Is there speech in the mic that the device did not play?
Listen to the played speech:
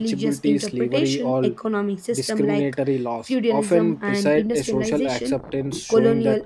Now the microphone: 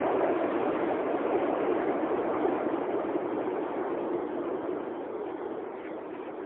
No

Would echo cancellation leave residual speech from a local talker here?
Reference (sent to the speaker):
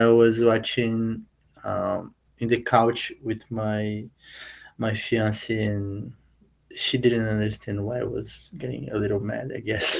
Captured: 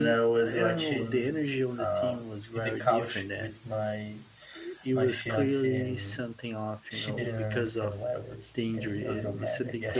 Yes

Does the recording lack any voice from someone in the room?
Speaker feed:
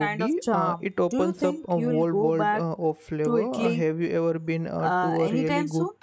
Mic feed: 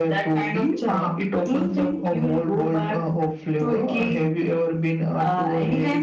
Yes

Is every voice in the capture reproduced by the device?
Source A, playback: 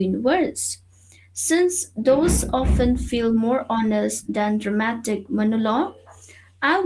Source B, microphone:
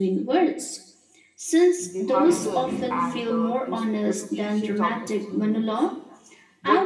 No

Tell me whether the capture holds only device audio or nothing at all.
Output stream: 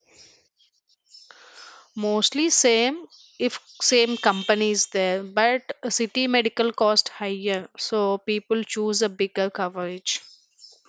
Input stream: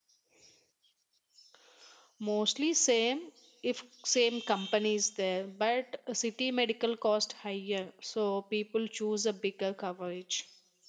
Yes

